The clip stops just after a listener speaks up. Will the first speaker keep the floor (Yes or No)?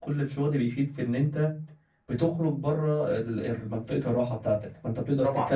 Yes